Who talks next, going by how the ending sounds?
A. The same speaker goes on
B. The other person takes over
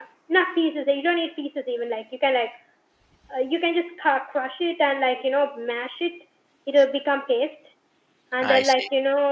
A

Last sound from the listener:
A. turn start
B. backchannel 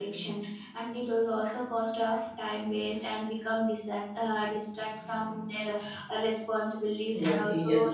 B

